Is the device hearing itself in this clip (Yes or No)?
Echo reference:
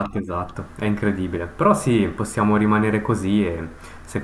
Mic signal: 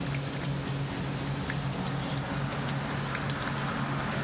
No